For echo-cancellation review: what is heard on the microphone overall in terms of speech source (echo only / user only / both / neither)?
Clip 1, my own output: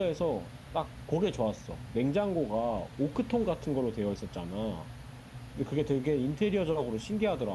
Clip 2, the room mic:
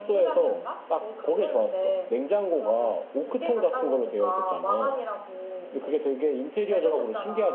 both